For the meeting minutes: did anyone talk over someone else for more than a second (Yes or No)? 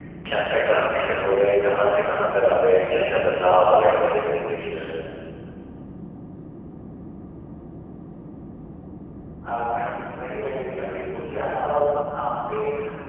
No